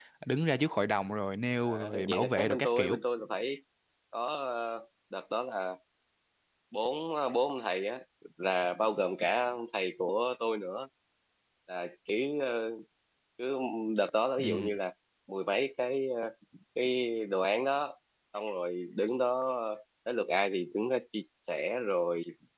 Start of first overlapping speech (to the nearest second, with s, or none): 2 s